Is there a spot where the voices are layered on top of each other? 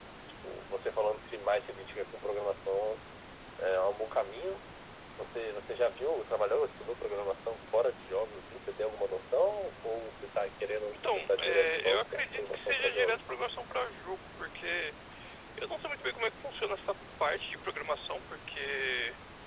Yes, from 11.0 s

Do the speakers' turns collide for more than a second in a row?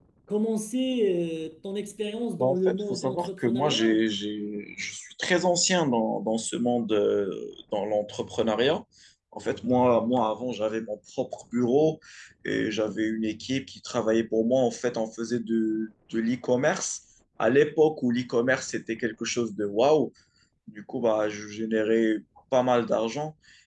Yes, from 2.4 s

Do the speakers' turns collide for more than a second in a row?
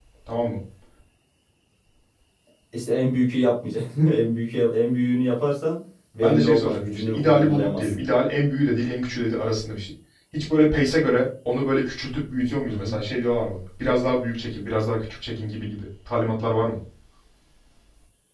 Yes, from 6.2 s

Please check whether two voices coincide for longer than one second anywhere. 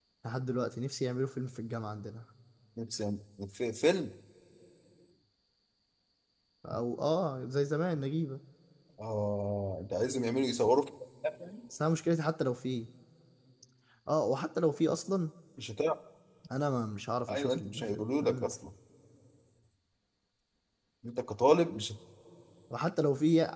Yes, from 17.3 s

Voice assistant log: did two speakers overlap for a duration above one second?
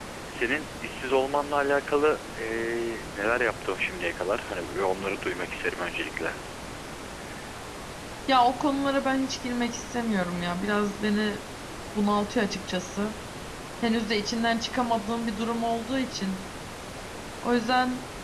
No

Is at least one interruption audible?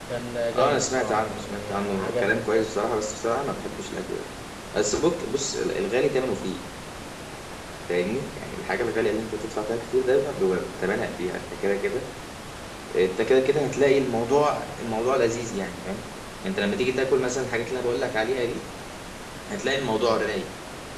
Yes, from 0.6 s

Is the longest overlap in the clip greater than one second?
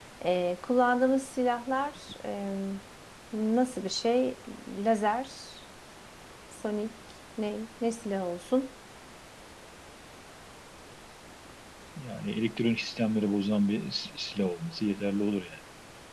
No

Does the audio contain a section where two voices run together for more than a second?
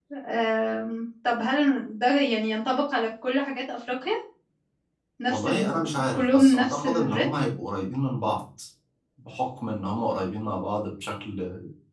Yes, from 5.3 s

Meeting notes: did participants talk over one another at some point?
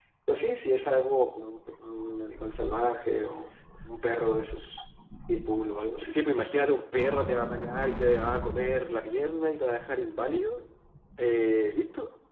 No

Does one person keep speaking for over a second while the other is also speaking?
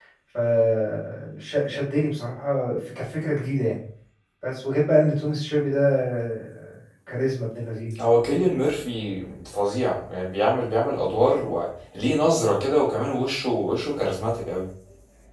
No

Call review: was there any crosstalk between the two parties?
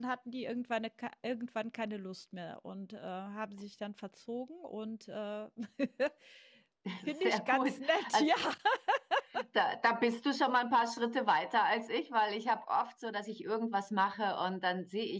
Yes, from 7.1 s

